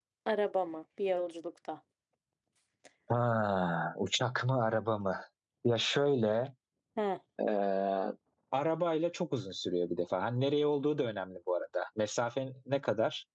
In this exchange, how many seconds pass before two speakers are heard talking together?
none

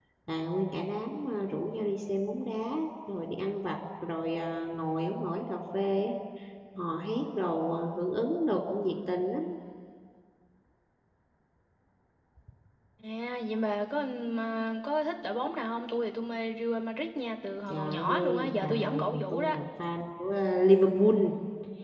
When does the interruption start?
17.7 s

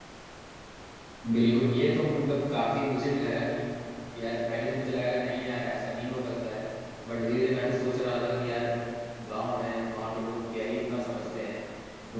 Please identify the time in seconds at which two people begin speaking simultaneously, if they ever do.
none

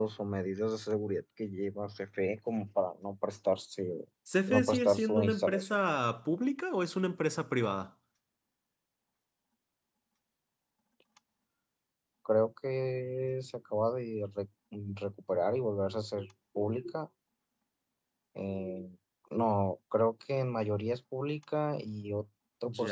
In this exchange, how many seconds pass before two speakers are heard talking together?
4.5 s

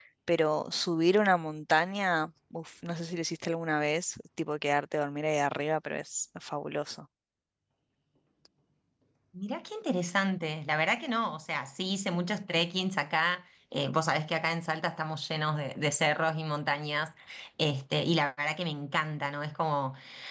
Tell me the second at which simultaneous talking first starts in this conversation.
none

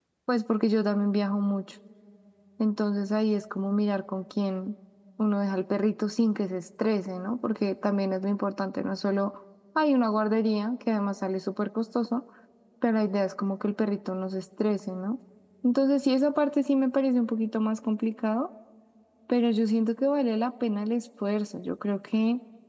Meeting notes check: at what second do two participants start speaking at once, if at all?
none

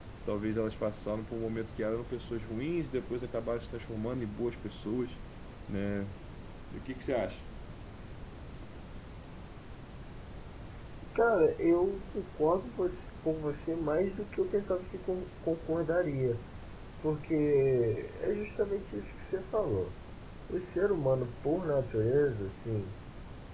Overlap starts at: none

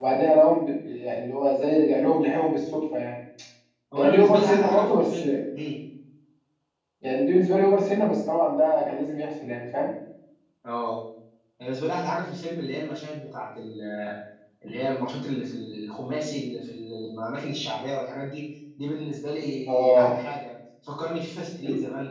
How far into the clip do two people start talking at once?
4.0 s

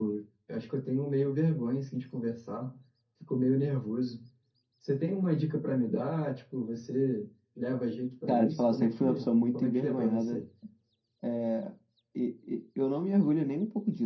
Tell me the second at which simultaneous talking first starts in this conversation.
8.3 s

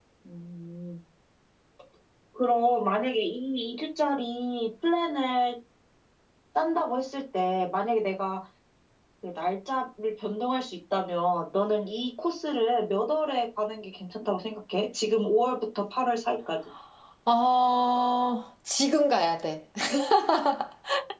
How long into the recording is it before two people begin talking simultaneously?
none

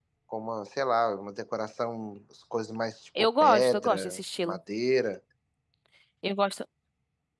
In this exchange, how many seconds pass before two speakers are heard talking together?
3.2 s

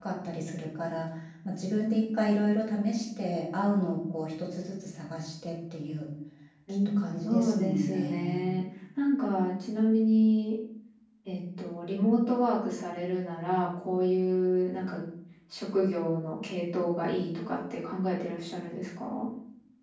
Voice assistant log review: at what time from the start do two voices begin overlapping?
6.8 s

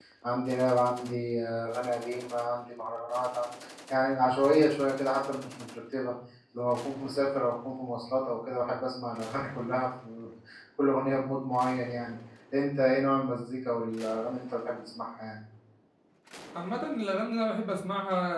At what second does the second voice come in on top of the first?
none

